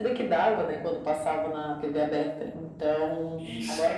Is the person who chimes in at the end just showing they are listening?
Yes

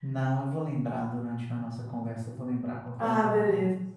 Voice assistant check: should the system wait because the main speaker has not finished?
No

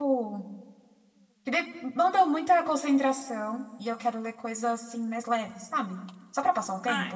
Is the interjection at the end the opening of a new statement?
Yes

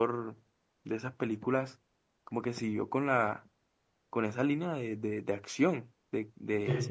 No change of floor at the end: Yes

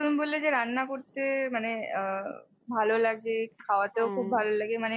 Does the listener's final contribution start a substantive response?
No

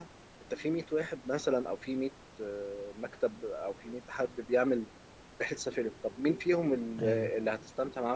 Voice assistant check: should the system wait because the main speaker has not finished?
Yes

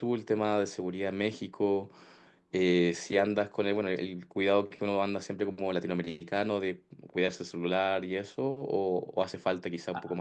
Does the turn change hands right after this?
Yes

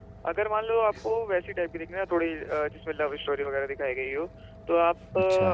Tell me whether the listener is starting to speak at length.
No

